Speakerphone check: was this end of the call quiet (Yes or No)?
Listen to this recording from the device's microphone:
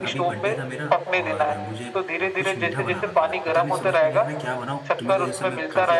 No